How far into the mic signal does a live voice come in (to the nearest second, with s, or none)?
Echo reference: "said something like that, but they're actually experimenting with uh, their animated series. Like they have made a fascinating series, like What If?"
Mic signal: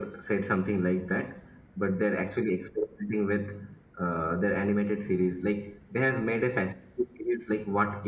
none